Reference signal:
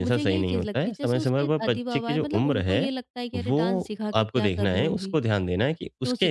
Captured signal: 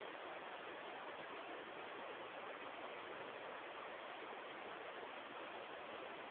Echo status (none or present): none